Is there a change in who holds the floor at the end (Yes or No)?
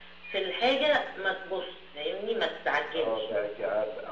Yes